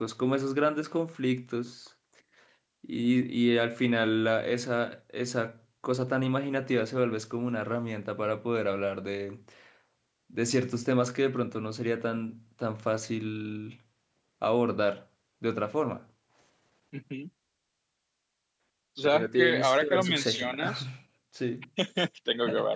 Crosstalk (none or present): present